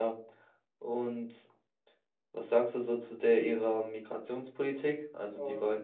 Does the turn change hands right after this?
No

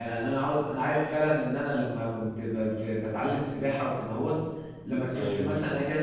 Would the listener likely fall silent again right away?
Yes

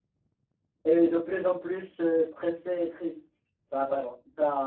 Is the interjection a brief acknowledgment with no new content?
Yes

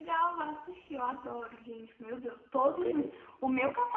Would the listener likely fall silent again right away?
Yes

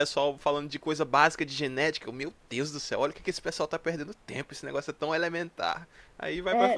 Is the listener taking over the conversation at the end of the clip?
Yes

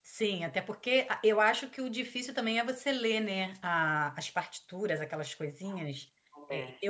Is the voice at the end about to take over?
No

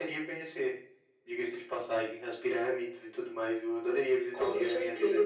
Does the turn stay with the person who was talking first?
No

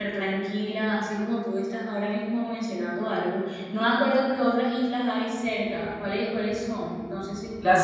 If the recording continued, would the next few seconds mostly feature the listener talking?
Yes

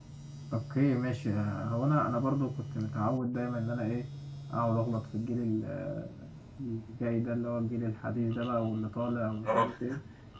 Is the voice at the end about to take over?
No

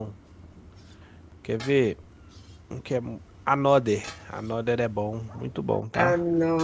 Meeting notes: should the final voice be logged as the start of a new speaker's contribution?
Yes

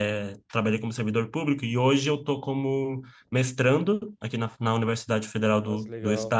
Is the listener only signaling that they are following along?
Yes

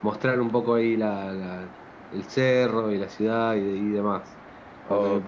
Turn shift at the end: No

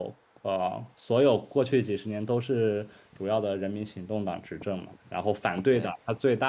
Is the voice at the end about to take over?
No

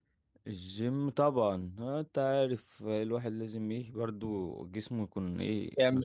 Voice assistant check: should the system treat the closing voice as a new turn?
Yes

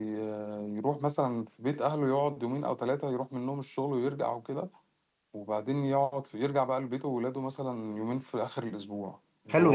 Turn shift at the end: Yes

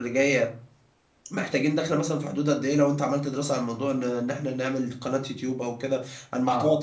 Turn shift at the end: Yes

